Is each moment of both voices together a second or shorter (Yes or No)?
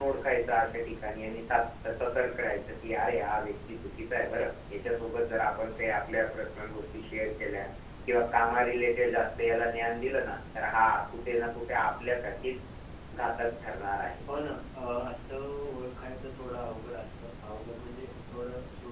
Yes